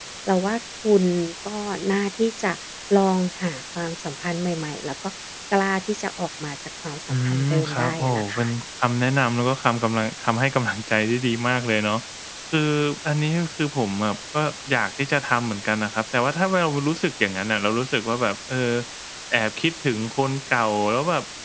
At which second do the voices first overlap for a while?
7.1 s

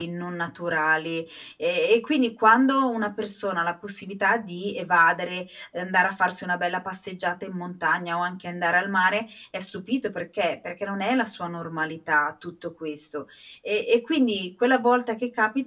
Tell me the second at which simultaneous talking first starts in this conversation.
none

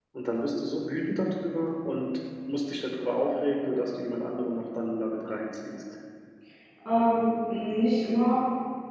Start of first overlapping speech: none

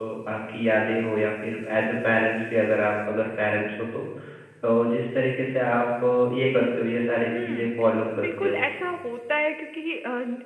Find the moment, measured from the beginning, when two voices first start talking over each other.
7.3 s

